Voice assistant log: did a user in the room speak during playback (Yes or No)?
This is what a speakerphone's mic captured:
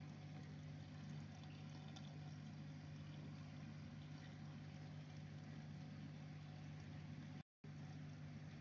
No